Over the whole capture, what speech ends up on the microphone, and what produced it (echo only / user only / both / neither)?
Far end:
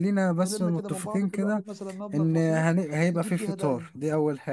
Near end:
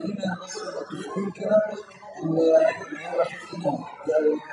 echo only